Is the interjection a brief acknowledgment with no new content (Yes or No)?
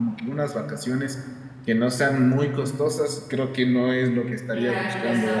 No